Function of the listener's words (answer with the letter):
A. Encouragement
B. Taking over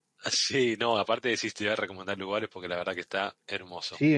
B